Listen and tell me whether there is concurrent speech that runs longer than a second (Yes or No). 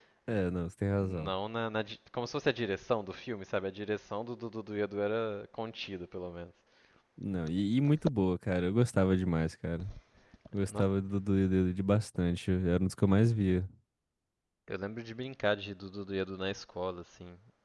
No